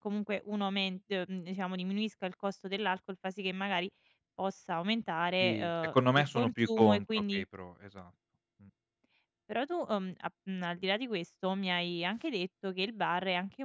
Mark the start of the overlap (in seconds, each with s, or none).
5.4 s